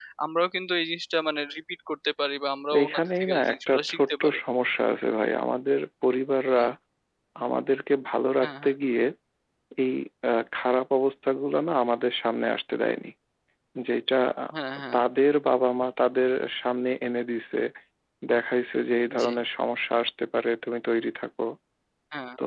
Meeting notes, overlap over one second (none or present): present